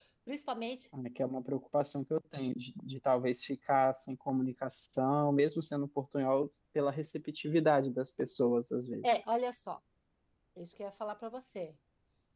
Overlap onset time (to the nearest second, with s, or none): none